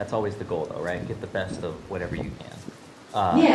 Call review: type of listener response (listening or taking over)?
taking over